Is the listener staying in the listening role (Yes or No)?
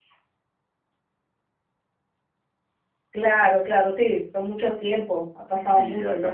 No